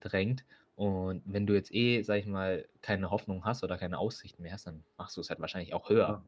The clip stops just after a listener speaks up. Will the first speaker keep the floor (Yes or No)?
No